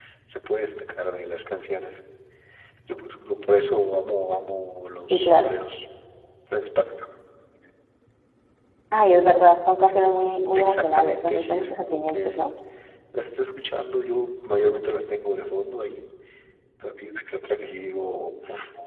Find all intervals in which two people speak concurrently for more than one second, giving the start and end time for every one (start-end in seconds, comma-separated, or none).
10.6-12.5